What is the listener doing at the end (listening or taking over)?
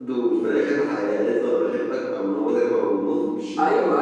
taking over